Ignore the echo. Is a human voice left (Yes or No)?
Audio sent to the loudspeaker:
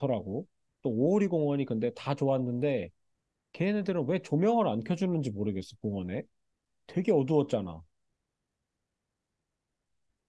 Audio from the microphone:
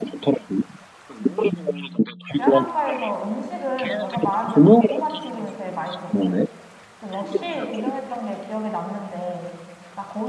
Yes